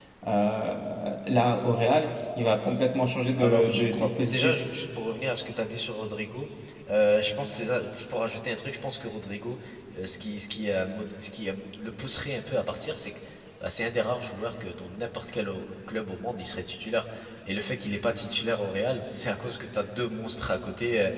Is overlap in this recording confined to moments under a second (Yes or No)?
No